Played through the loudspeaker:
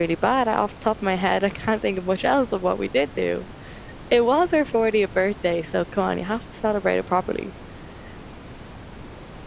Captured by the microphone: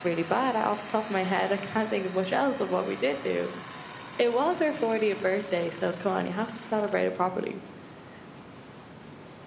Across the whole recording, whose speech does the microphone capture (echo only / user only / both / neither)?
echo only